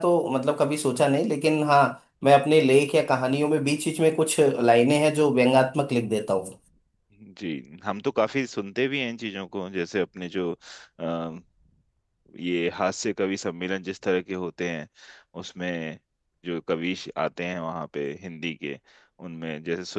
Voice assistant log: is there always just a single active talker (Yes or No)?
Yes